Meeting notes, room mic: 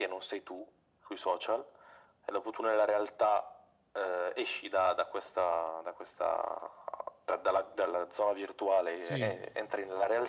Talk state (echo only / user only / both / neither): both